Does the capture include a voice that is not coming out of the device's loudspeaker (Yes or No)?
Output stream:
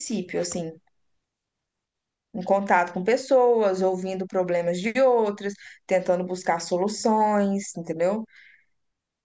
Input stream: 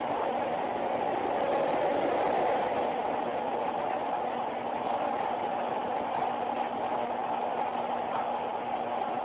No